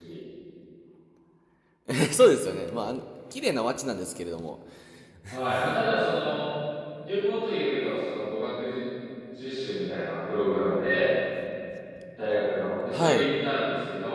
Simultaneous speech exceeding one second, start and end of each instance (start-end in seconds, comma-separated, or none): none